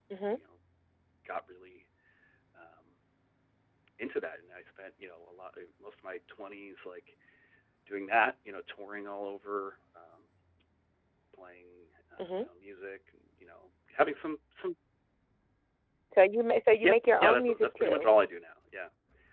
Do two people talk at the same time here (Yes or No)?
Yes